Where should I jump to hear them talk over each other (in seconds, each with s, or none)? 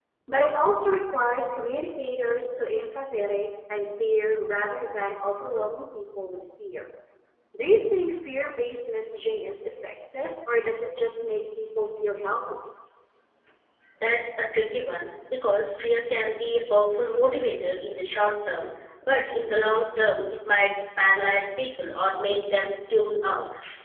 none